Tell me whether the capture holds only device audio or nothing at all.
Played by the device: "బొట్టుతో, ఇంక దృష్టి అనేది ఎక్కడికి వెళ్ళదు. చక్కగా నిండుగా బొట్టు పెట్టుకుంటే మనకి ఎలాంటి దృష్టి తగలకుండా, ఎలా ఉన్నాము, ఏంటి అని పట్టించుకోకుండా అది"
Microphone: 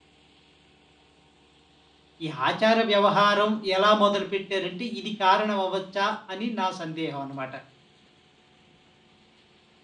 No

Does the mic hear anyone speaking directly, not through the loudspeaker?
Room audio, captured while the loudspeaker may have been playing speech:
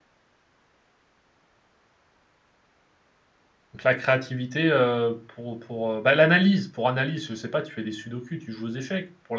Yes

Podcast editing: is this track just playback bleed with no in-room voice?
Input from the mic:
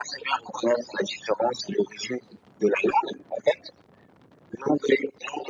Yes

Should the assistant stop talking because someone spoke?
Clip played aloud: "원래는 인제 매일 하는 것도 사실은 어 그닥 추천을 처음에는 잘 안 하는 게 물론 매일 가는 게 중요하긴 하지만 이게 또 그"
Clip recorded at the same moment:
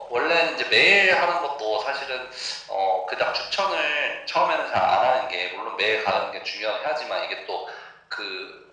No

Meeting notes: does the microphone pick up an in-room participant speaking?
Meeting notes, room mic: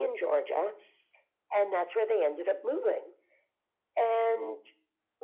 No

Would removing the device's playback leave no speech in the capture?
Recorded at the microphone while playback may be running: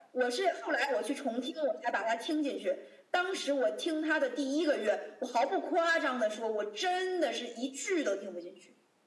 Yes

